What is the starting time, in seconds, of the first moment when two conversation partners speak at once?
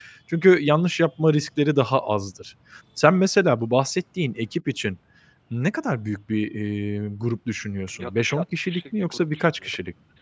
8.0 s

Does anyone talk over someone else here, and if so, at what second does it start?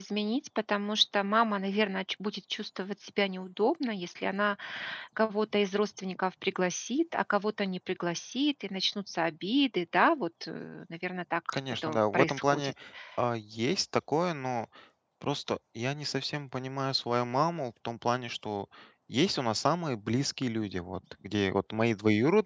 11.5 s

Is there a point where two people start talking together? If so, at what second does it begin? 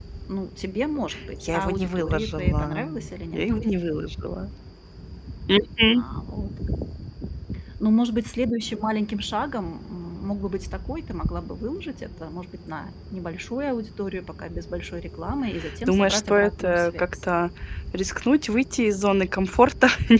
1.4 s

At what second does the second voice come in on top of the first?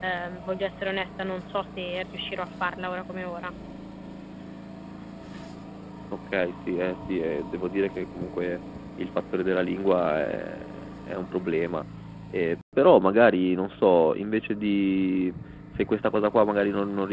none

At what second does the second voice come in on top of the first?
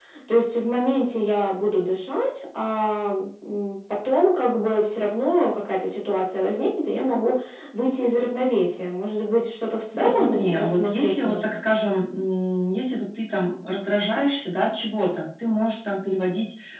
9.9 s

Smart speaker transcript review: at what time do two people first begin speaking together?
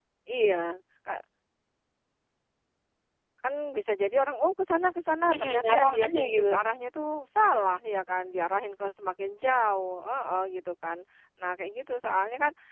5.3 s

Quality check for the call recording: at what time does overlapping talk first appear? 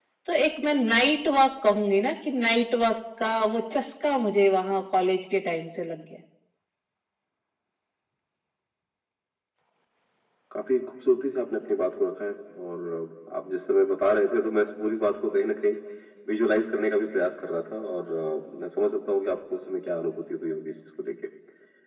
none

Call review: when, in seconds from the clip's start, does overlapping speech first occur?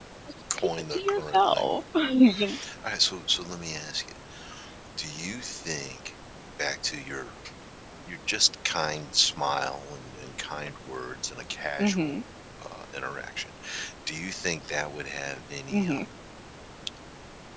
0.6 s

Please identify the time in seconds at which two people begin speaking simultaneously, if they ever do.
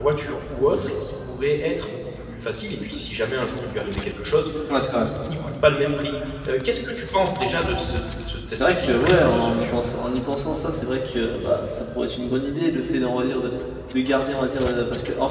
8.5 s

